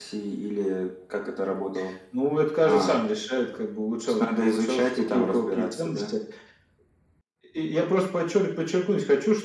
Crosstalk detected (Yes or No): Yes